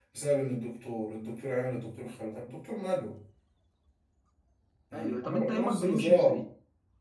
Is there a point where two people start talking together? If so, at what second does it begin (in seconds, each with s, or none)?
4.9 s